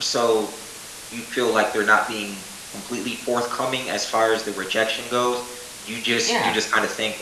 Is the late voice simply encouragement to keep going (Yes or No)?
Yes